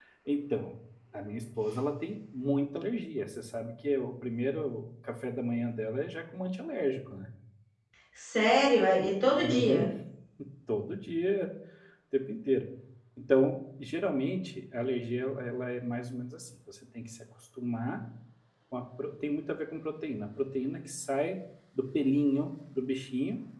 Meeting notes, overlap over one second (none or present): none